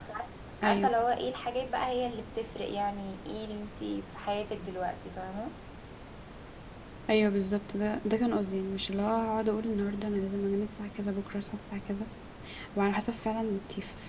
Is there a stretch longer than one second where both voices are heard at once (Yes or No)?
No